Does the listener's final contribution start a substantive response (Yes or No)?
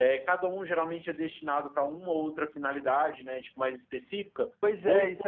Yes